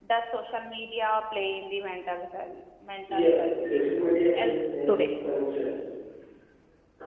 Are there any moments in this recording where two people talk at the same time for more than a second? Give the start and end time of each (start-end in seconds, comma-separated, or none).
3.2-5.1